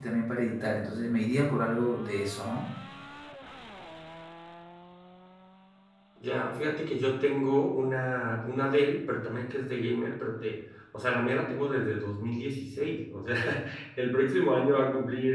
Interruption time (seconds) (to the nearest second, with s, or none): none